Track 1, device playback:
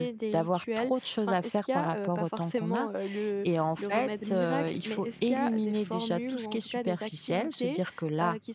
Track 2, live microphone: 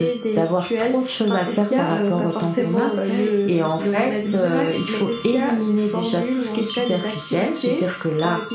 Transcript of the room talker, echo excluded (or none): Est-ce que avant tu ne le faisais pas et tu le ressentais?